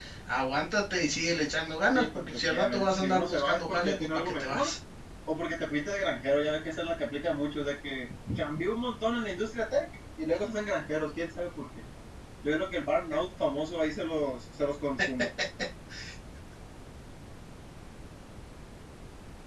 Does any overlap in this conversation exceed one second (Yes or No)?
Yes